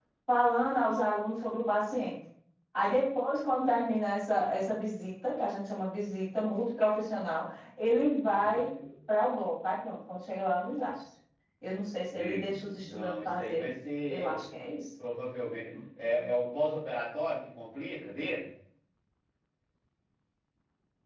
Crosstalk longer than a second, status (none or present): present